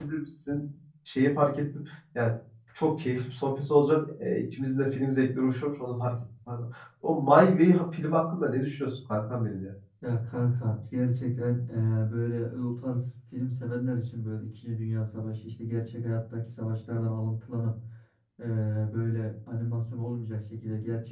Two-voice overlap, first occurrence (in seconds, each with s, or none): none